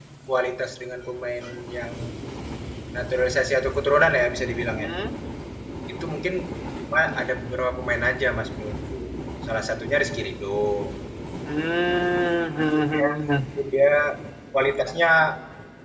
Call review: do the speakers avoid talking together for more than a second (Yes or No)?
Yes